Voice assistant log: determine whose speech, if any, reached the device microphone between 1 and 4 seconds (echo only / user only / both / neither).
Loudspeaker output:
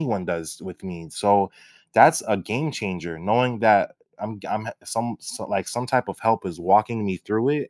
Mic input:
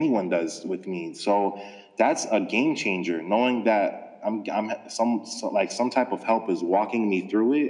echo only